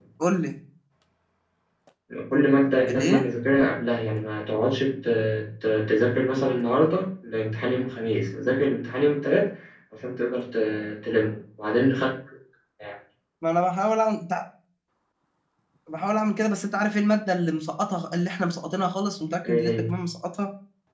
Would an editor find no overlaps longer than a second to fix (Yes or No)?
Yes